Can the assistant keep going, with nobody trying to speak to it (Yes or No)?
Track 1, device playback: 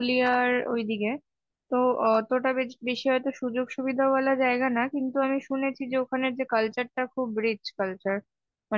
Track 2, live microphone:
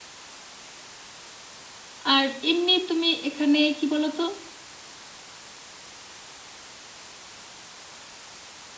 No